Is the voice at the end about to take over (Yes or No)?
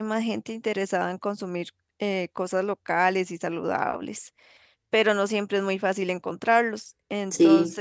No